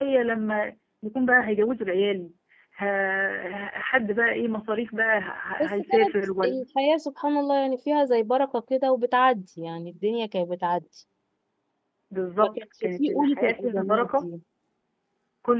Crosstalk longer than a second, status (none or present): present